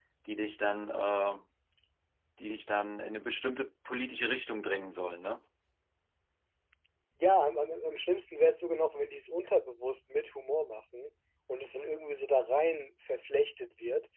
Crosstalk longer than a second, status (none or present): none